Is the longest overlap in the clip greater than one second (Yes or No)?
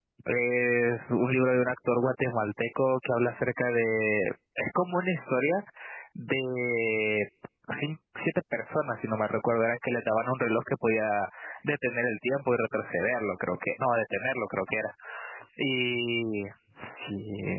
No